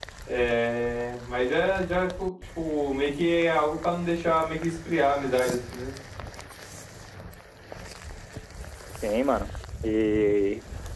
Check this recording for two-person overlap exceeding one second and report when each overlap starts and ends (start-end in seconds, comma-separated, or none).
none